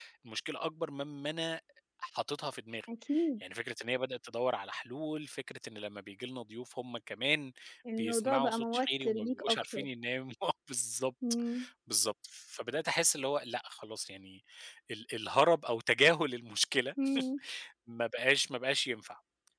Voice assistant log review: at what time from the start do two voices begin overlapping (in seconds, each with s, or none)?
8.0 s